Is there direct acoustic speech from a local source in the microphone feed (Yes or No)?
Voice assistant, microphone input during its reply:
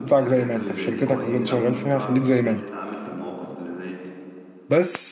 Yes